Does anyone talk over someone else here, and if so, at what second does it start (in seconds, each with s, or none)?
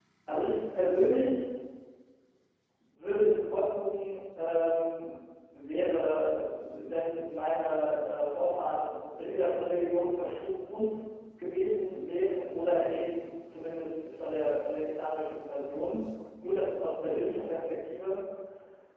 none